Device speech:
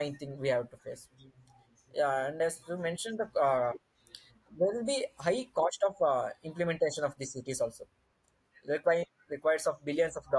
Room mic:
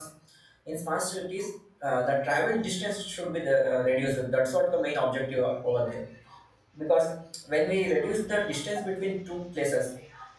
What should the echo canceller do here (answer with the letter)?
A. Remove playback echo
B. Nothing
B